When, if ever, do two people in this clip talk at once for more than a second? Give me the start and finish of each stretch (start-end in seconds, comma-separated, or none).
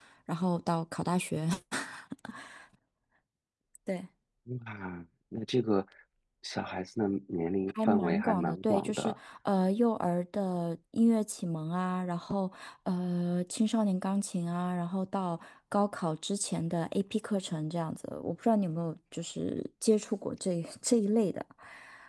7.8-9.1